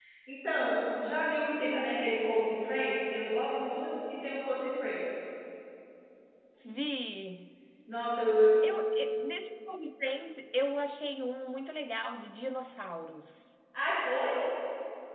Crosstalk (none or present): none